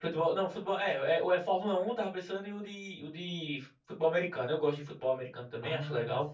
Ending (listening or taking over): taking over